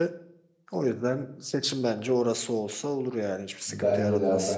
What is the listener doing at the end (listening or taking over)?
taking over